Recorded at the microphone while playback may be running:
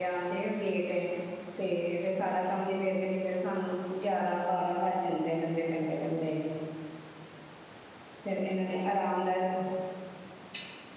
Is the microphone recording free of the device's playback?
Yes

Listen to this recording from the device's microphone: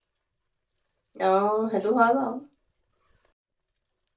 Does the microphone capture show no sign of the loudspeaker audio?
Yes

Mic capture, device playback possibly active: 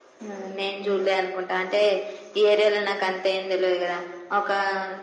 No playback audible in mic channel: No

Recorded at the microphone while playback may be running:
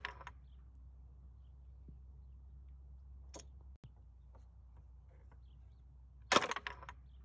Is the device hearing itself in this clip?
No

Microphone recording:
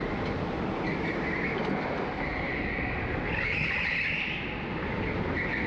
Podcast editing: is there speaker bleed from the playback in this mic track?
No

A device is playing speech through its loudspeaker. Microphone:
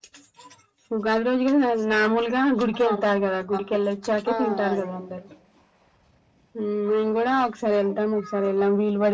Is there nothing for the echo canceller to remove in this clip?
No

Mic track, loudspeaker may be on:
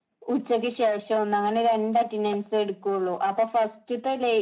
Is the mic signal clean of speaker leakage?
No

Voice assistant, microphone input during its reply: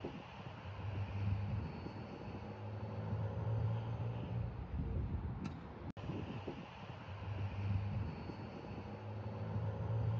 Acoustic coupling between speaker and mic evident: No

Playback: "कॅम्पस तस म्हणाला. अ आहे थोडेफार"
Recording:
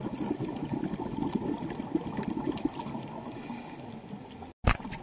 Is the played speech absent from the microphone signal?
Yes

